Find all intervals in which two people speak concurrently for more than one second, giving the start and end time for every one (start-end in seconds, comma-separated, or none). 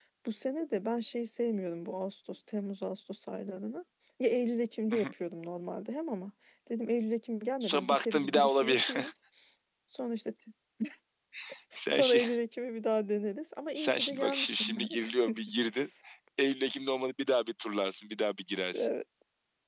7.6-8.9, 13.8-15.0